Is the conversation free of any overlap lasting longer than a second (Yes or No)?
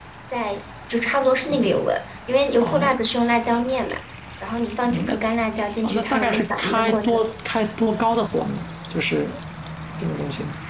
No